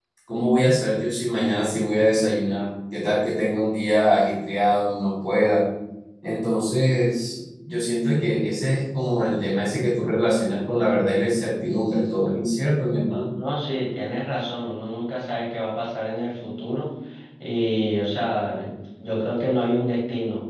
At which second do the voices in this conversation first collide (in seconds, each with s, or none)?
none